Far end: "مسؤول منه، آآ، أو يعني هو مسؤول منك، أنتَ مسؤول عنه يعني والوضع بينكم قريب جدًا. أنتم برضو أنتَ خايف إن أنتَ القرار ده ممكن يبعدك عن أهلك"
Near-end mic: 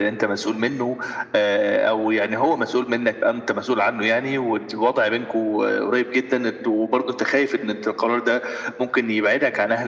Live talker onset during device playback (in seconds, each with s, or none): none